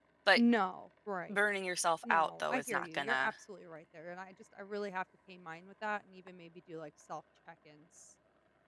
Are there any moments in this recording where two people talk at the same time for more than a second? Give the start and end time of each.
2.0-3.3

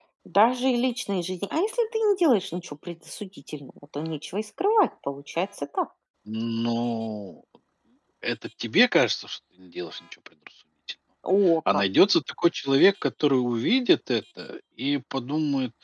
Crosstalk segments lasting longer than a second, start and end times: none

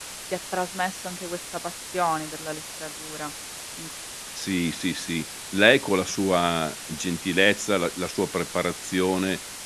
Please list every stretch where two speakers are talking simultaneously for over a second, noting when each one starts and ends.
none

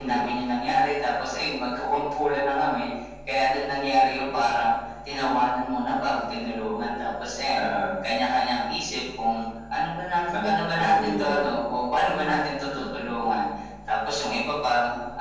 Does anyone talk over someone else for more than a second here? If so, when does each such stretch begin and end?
10.3-11.5

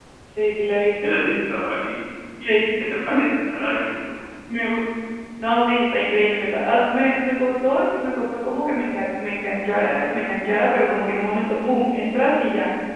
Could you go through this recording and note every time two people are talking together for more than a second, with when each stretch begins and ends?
none

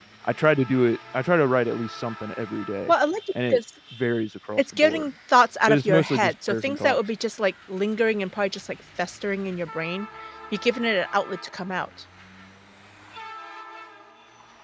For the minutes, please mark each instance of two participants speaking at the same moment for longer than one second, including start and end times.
5.7-7.0

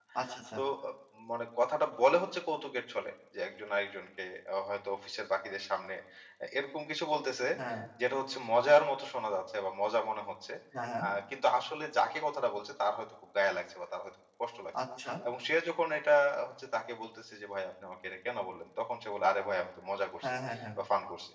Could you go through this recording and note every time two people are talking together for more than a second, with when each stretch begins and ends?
none

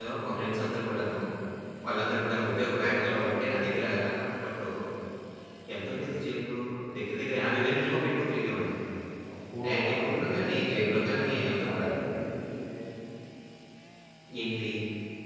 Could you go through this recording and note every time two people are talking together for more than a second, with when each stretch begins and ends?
9.7-11.9

